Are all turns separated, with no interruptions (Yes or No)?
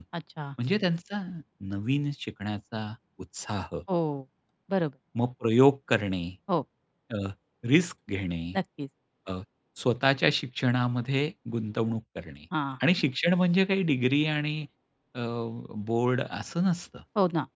Yes